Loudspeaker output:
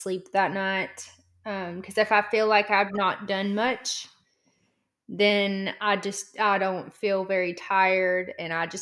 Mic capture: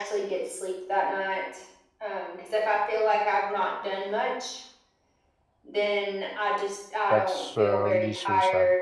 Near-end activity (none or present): present